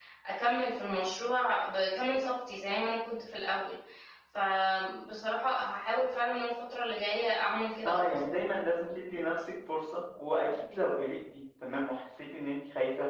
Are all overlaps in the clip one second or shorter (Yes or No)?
Yes